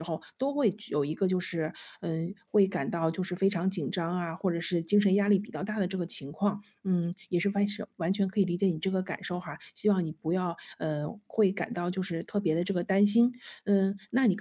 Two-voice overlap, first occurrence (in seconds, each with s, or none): none